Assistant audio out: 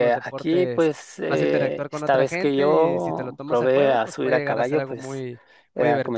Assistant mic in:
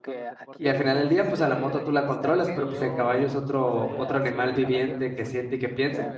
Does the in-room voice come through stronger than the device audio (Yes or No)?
Yes